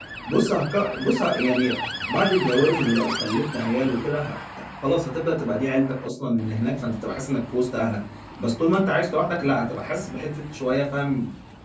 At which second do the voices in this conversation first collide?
none

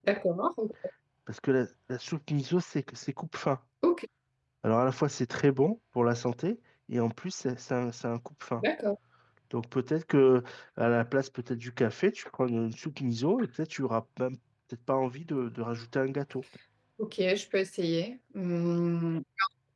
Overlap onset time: none

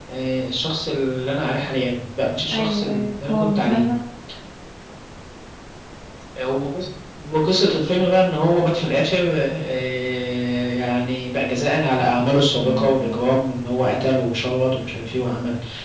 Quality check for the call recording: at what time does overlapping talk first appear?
2.5 s

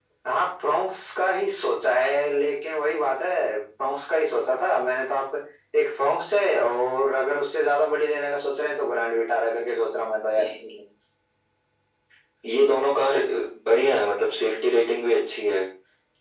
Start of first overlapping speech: none

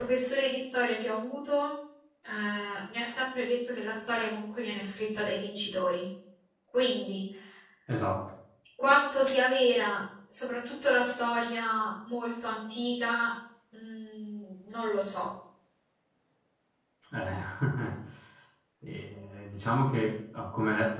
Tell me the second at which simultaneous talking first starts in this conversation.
none

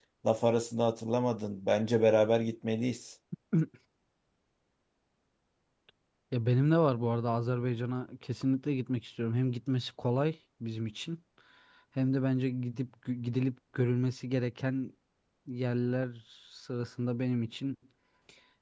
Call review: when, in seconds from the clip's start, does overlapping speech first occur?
none

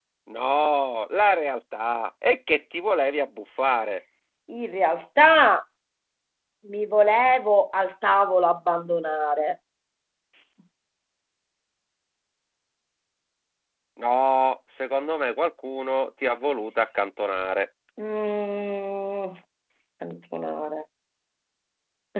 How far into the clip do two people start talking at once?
none

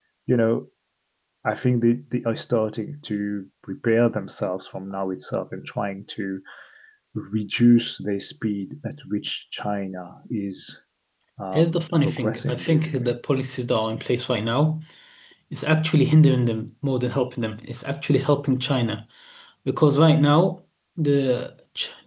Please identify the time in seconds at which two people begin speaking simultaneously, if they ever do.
11.5 s

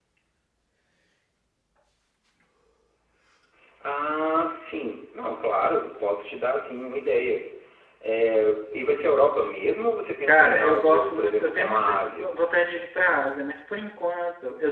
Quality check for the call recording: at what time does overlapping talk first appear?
10.2 s

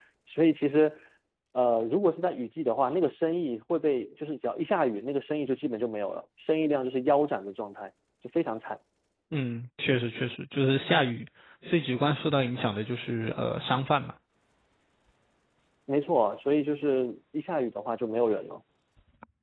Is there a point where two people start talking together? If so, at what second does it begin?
none

